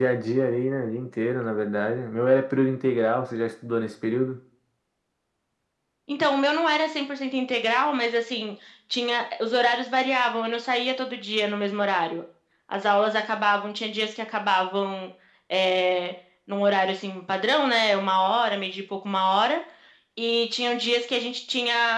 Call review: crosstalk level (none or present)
none